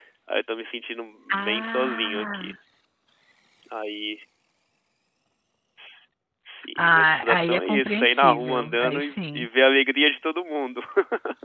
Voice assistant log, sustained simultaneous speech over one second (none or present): present